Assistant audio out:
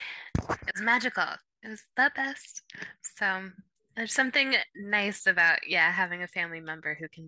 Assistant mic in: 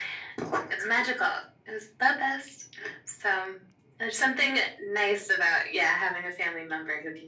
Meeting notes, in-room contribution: none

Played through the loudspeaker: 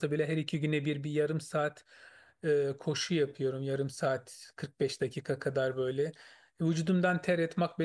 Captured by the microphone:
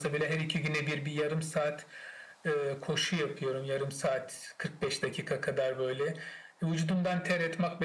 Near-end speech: none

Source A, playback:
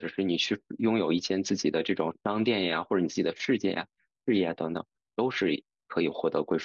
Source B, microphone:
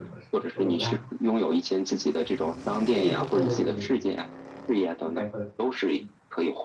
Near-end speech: present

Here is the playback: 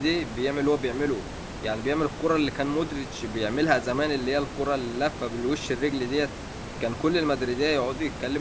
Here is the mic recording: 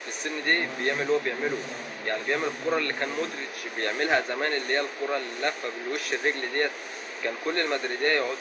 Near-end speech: present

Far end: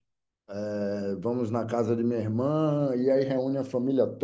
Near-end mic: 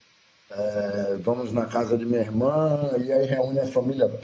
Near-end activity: none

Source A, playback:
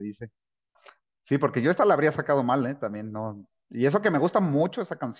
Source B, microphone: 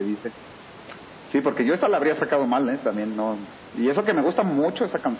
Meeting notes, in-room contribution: none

